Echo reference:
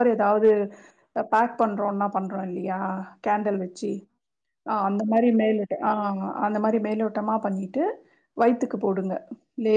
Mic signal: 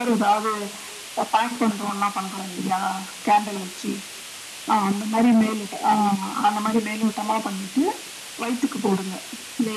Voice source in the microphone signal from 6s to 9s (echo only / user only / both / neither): echo only